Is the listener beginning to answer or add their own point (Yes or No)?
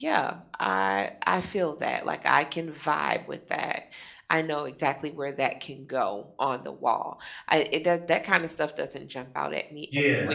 Yes